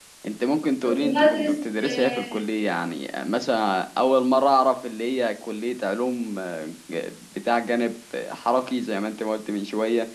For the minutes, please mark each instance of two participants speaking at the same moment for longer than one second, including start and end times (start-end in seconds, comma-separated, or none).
0.8-2.4